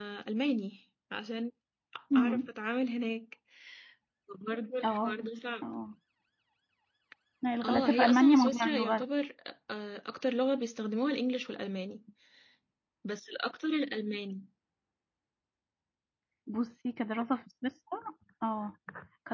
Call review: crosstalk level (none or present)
present